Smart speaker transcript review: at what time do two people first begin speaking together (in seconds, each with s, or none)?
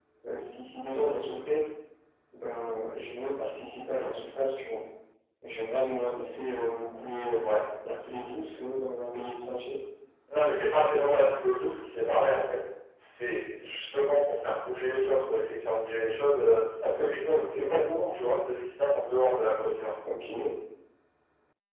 none